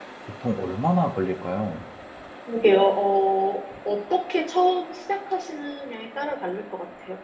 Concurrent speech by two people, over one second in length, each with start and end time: none

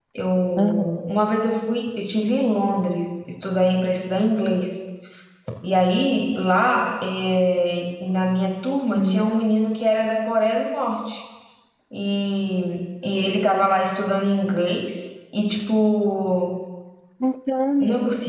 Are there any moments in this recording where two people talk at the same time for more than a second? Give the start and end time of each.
none

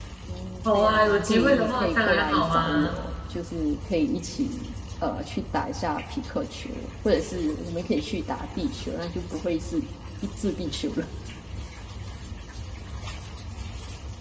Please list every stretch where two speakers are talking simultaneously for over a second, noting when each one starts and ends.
0.7-3.0

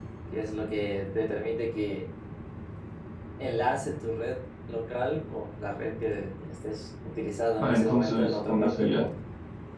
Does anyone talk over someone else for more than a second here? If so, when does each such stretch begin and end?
7.6-9.1

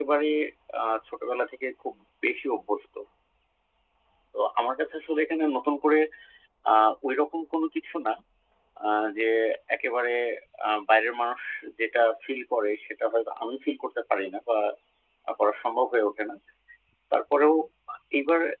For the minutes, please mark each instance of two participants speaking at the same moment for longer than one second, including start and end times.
none

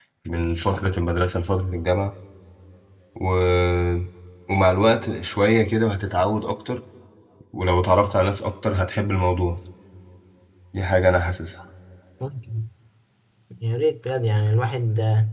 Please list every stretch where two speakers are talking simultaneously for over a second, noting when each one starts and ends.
none

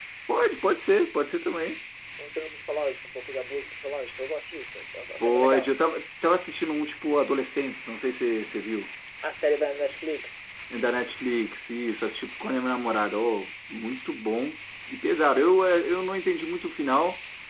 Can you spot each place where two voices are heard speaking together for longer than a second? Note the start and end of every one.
none

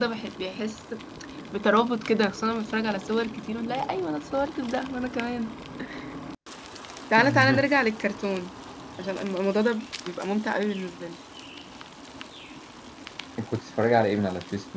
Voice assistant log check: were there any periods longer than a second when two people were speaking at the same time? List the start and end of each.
none

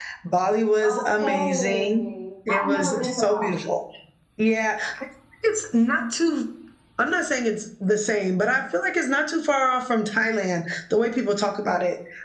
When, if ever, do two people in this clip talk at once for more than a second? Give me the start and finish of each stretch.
0.8-2.0, 2.5-3.7

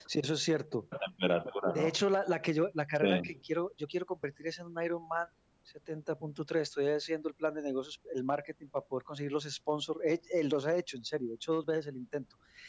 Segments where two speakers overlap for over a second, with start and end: none

